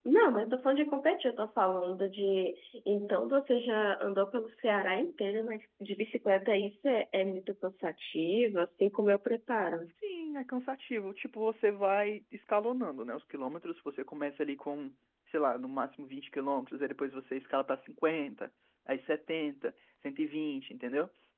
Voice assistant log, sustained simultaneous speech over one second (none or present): none